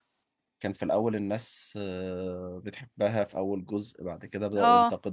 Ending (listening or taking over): listening